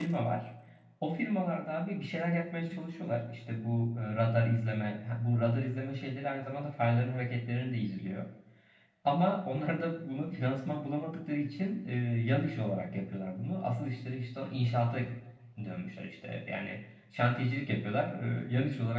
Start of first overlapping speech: none

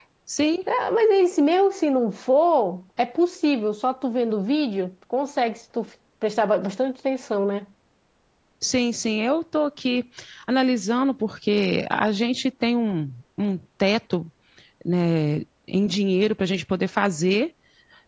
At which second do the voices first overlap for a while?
none

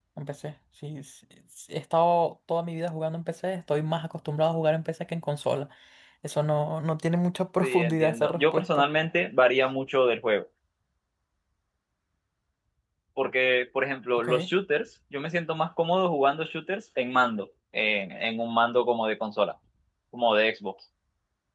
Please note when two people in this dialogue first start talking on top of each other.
8 s

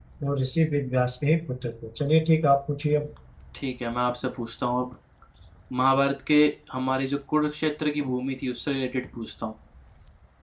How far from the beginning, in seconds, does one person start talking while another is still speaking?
none

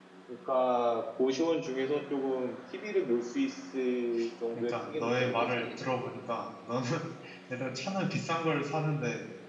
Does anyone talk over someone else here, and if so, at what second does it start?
5 s

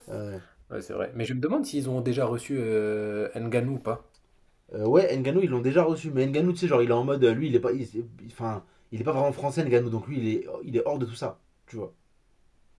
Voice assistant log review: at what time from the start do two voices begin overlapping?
none

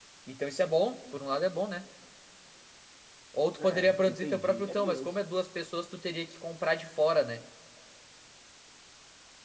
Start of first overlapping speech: 4 s

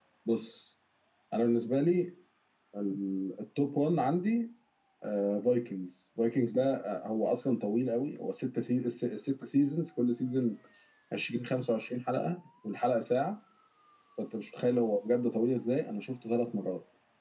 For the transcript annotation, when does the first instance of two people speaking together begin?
none

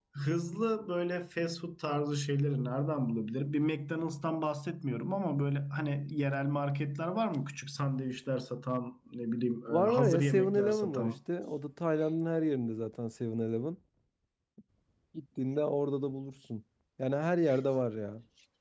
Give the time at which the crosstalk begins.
10 s

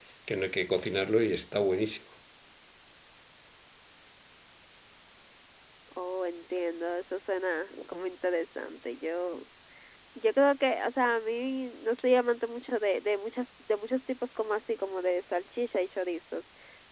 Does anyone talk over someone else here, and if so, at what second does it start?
none

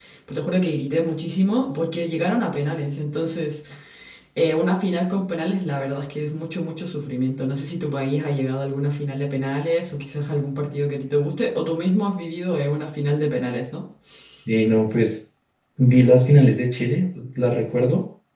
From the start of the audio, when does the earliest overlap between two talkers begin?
none

